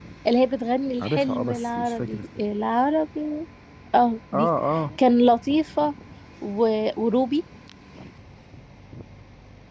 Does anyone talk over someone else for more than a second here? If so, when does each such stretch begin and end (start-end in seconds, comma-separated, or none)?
1.0-2.3